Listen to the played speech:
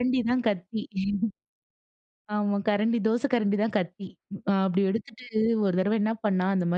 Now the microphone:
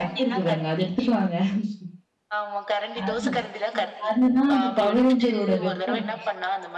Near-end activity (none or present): present